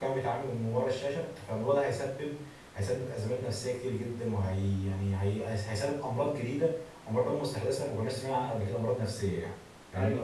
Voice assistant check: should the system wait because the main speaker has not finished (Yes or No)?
No